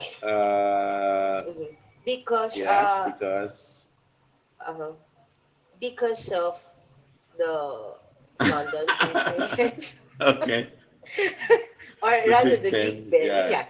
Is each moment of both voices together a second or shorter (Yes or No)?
No